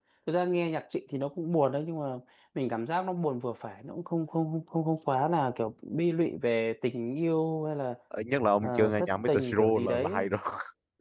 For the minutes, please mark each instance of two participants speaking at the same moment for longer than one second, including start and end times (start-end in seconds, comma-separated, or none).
8.6-10.2